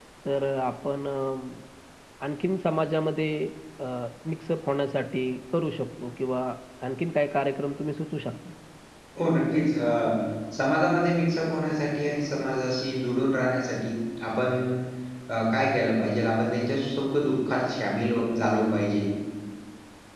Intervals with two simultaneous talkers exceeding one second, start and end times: none

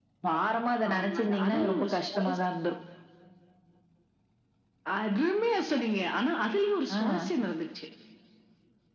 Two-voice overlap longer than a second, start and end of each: 0.9-2.4

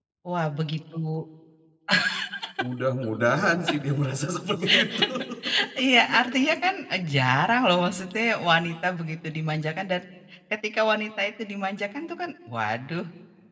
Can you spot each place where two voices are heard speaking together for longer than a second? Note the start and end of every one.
none

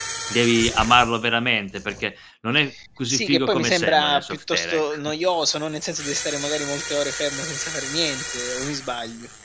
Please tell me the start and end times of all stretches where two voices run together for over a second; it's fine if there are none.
3.1-5.0

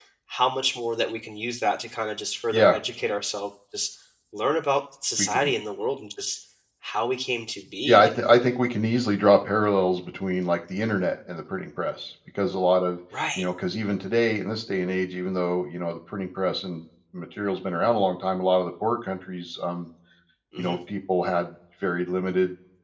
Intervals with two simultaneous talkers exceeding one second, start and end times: none

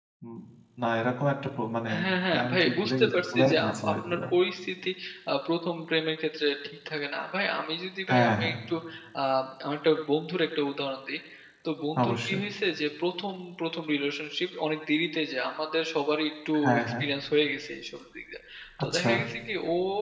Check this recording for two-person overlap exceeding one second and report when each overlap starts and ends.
2.3-4.2

